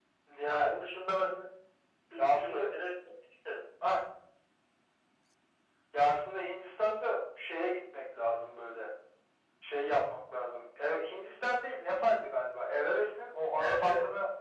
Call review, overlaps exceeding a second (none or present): none